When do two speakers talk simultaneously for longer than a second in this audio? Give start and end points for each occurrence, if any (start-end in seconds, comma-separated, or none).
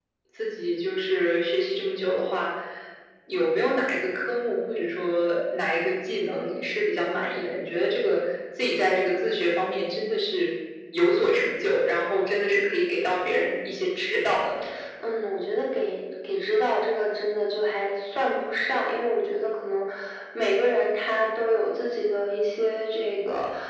none